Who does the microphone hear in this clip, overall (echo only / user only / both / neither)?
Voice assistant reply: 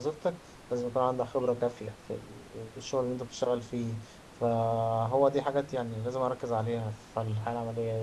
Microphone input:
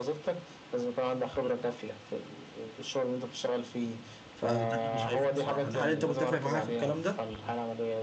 both